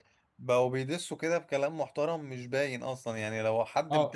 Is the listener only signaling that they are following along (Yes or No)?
No